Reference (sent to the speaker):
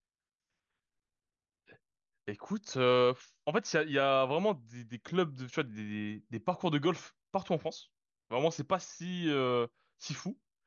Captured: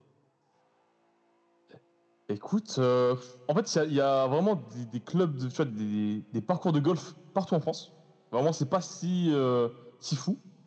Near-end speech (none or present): none